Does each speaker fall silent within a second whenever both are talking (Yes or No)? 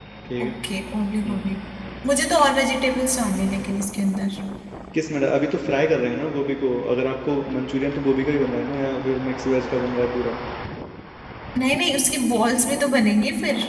Yes